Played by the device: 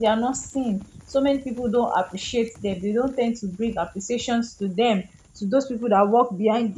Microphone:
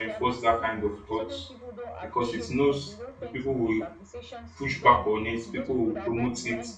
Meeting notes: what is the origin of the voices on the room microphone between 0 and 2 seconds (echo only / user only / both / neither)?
both